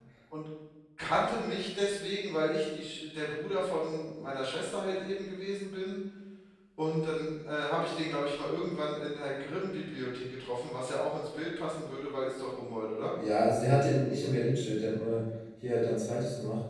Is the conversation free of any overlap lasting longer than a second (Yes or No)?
Yes